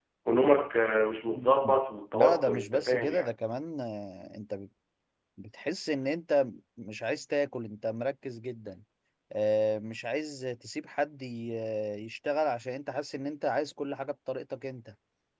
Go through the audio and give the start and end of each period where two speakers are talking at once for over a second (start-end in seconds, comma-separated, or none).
2.1-3.3